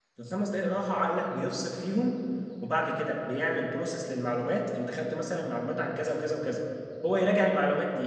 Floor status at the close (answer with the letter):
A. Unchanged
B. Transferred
A